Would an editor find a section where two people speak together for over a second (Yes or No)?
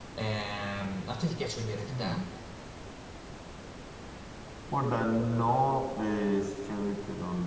No